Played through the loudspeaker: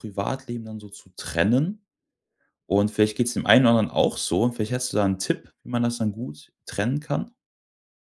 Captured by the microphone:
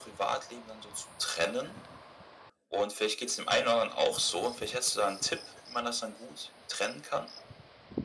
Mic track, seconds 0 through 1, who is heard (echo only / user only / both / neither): echo only